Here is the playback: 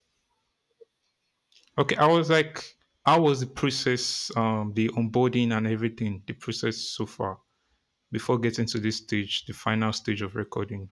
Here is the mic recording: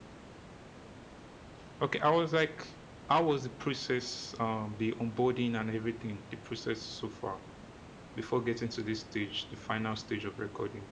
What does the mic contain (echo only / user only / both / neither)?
echo only